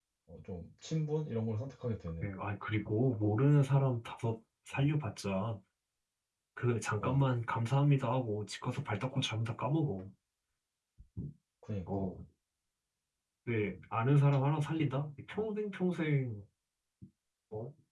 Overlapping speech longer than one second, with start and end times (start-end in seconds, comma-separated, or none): none